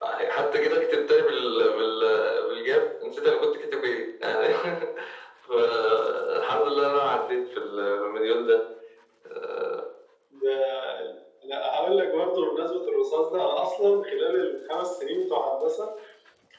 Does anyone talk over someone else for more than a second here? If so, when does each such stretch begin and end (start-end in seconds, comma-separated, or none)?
none